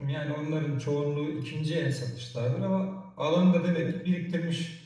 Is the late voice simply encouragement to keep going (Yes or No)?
Yes